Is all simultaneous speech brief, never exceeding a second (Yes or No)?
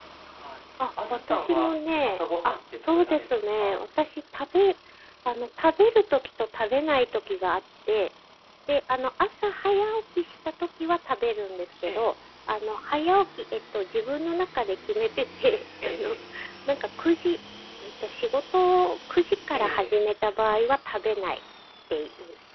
No